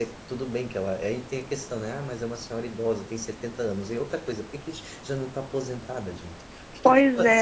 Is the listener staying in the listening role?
No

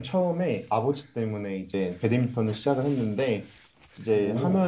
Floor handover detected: No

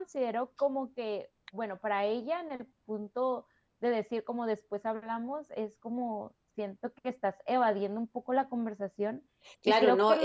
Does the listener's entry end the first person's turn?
Yes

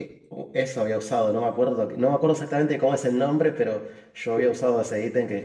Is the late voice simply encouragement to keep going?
Yes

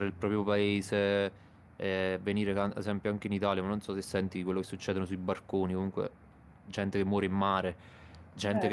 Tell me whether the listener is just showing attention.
Yes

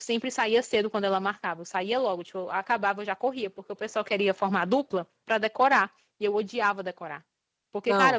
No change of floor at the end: Yes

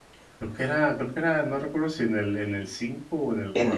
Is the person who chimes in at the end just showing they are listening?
No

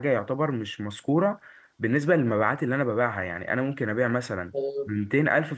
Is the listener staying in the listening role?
Yes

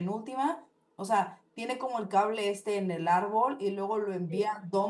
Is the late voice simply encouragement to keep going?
Yes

